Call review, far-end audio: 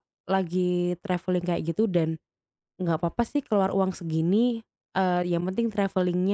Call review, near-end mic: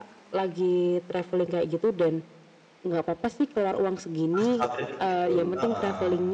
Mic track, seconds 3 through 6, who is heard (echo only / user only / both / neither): both